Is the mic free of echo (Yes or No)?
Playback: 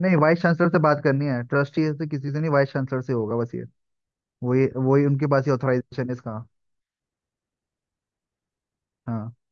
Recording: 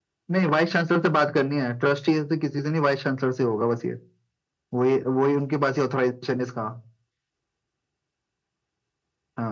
No